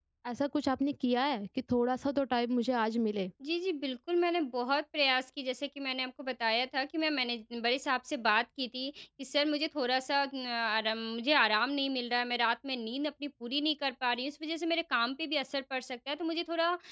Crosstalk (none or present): none